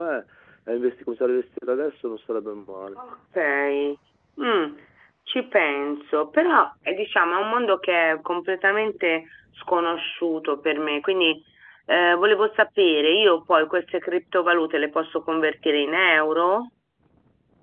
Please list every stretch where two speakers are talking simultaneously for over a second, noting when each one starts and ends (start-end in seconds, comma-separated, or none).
none